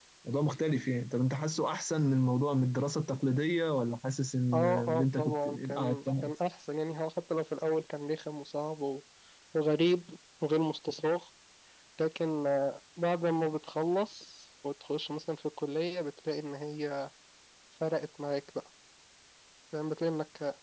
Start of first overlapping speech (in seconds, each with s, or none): 4.5 s